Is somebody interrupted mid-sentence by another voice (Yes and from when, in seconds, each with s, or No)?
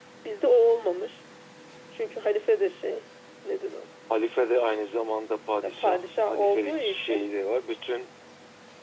Yes, from 5.6 s